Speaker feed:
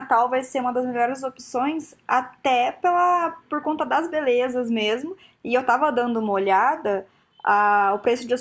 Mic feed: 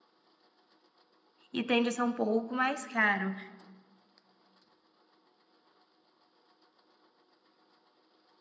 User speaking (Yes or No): Yes